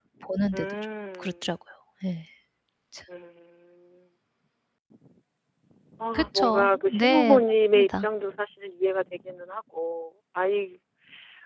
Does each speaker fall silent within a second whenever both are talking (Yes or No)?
No